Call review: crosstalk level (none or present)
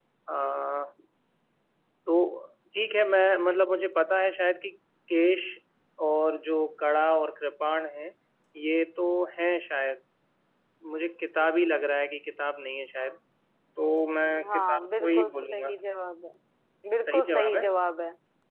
present